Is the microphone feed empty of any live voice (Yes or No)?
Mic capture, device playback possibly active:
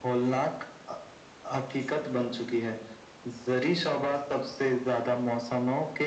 Yes